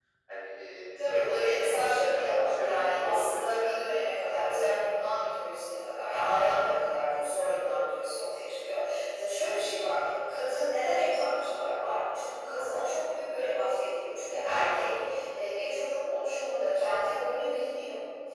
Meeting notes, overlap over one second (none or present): present